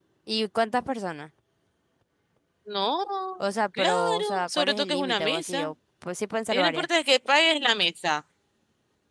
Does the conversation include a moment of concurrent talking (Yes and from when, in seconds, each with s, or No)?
Yes, from 3.8 s